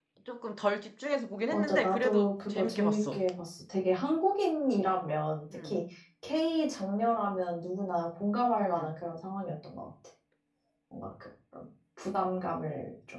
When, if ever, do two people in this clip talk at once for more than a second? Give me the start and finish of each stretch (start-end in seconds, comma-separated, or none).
1.5-3.2